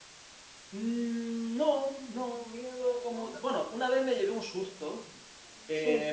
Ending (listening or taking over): listening